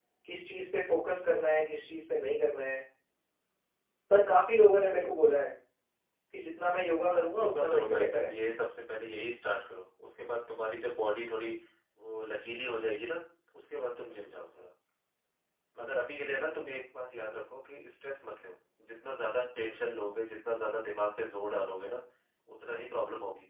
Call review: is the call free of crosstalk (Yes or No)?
No